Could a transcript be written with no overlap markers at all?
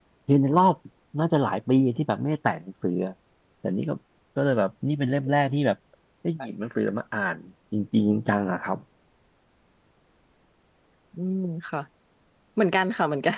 Yes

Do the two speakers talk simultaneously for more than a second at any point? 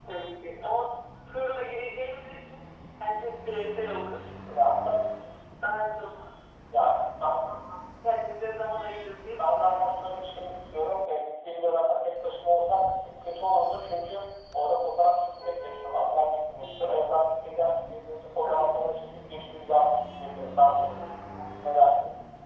No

